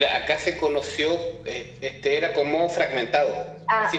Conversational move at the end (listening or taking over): listening